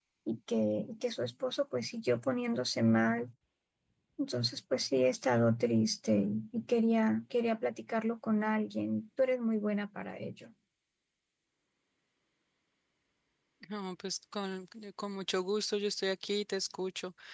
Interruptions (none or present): none